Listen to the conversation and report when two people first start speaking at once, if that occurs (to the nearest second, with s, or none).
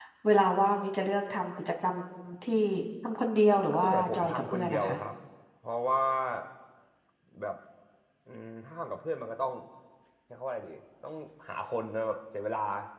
4 s